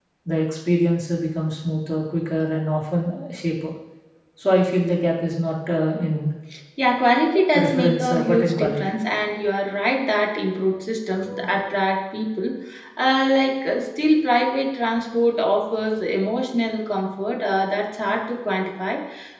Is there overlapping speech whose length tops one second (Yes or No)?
Yes